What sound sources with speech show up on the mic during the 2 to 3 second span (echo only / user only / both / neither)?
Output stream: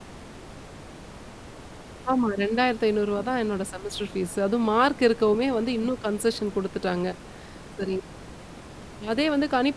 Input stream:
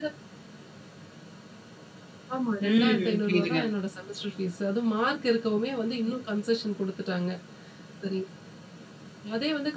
both